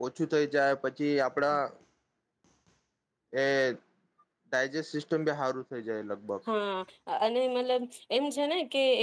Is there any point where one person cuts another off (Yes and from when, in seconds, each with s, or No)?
No